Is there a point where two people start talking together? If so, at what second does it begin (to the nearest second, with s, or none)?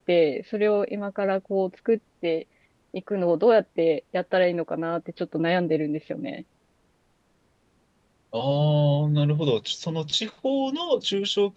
none